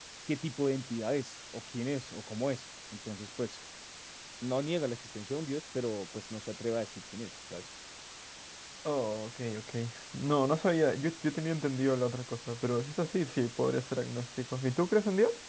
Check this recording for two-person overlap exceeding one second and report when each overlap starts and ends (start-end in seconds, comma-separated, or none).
none